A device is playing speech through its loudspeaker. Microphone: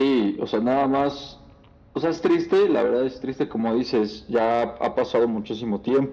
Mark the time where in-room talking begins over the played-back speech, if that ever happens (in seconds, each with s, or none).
none